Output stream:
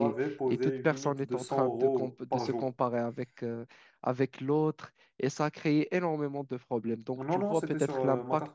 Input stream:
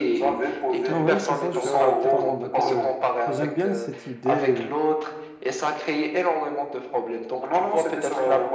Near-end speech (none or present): present